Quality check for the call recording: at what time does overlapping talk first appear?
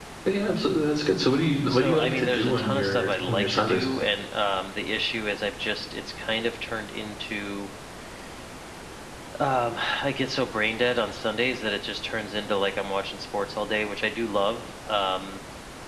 2 s

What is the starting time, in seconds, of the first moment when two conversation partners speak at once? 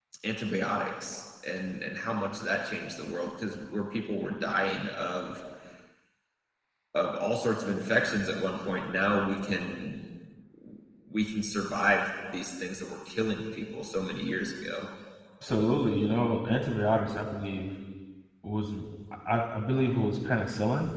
none

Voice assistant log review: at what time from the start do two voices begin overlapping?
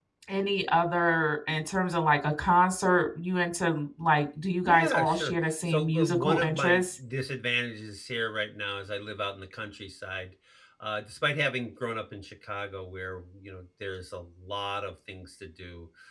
5 s

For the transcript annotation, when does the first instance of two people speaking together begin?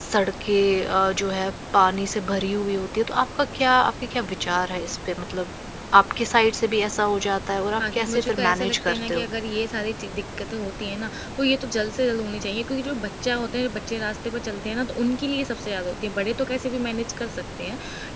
8 s

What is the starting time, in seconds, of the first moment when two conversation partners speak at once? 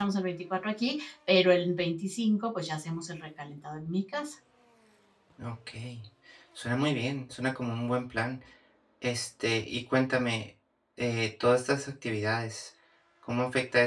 none

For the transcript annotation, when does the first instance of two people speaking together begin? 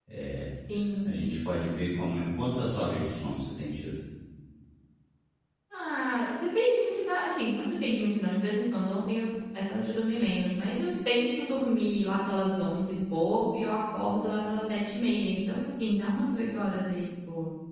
none

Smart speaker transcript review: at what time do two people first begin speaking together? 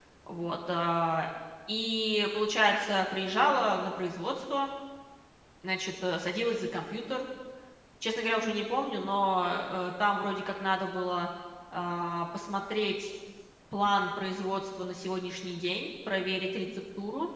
none

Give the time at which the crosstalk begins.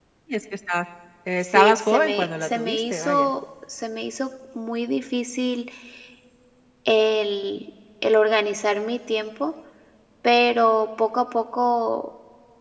2 s

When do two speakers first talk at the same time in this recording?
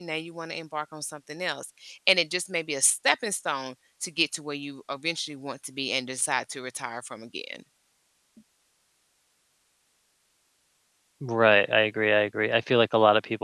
none

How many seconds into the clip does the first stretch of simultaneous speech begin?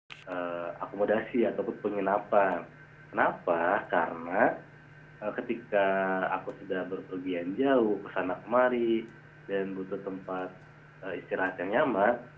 none

